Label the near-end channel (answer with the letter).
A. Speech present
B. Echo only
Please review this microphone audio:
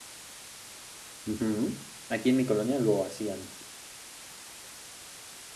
A